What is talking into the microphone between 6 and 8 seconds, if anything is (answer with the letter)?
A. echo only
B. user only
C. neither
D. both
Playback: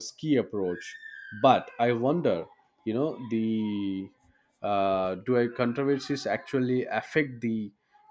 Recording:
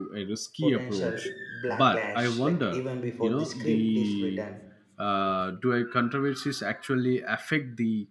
A